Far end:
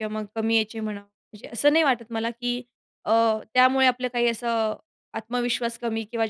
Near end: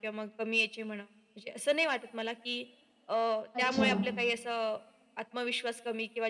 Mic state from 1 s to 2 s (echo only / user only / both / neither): echo only